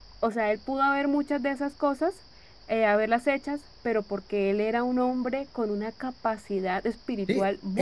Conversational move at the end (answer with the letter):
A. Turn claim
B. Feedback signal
A